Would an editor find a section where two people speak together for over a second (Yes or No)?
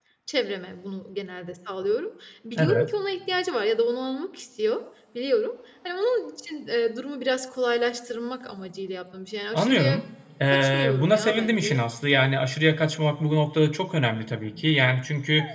Yes